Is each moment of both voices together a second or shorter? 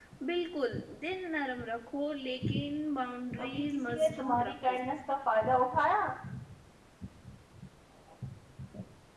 No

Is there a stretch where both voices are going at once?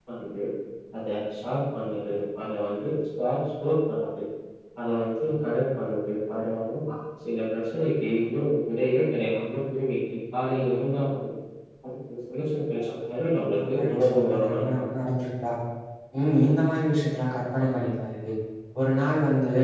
Yes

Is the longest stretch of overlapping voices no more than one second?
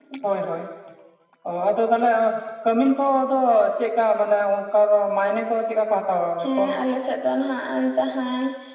Yes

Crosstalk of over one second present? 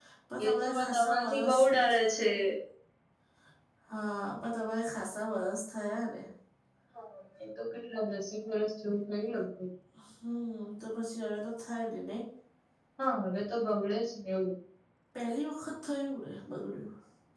Yes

